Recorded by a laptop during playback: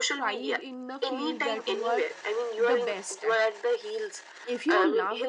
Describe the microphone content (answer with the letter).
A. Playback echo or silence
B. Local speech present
B